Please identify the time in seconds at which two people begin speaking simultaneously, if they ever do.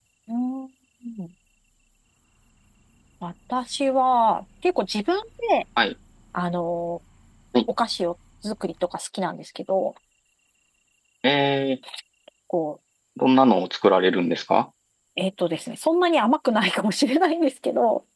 none

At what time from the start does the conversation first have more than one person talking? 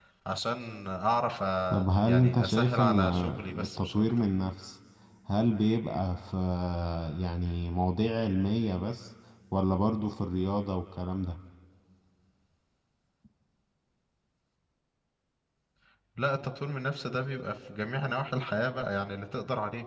1.7 s

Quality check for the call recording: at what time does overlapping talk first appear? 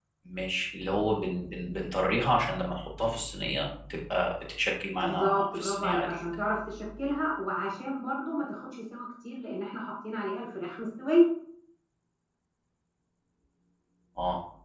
5.0 s

